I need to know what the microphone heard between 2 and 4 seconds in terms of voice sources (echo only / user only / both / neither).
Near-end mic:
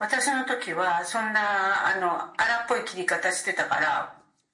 echo only